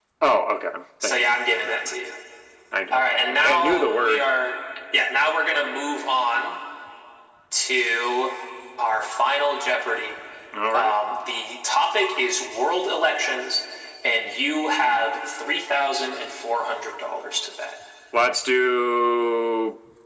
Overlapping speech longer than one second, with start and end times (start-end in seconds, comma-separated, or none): 2.9-4.2